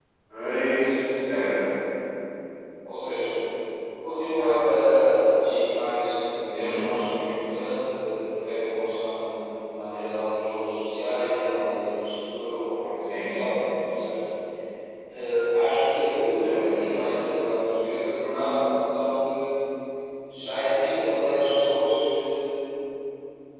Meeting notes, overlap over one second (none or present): none